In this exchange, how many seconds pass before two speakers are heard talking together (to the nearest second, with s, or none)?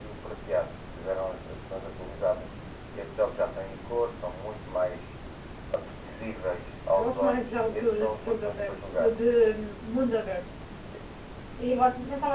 7 s